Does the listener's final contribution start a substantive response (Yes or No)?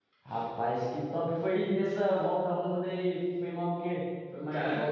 Yes